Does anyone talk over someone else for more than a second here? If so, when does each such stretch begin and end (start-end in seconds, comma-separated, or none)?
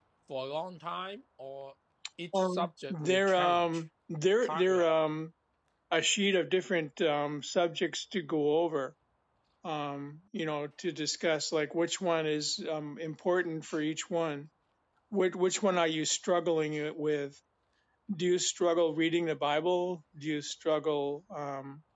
2.4-3.8